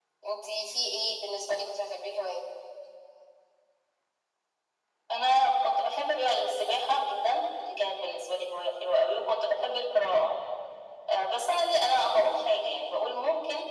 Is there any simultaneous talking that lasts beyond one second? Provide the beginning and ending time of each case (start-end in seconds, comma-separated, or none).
none